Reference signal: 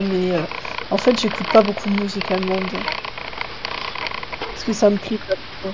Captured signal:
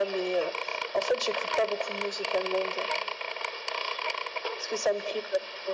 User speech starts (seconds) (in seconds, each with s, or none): none